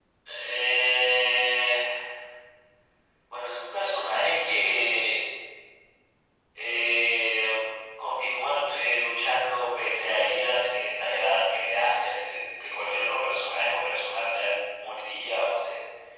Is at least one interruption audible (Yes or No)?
No